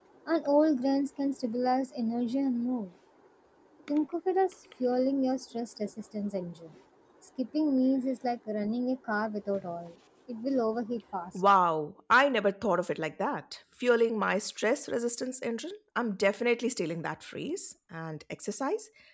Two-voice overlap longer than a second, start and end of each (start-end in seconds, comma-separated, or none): none